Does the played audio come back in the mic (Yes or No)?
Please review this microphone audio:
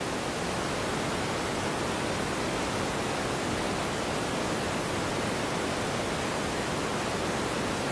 No